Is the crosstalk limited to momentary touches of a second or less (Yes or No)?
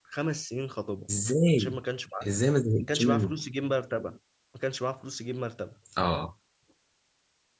Yes